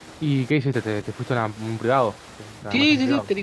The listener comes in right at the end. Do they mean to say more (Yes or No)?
Yes